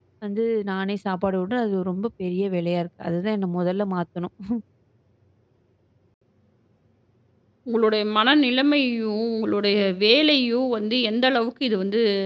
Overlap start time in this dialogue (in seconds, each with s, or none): none